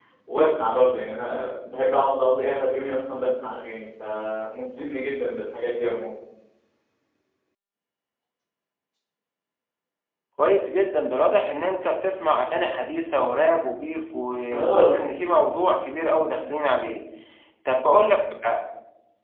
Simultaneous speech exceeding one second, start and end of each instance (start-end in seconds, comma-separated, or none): none